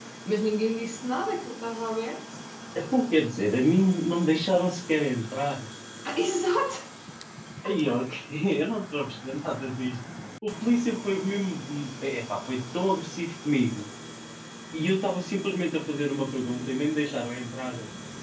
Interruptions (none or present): none